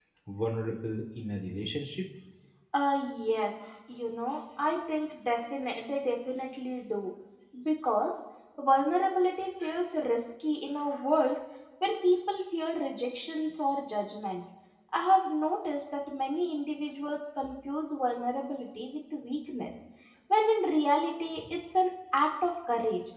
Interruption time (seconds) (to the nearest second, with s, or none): none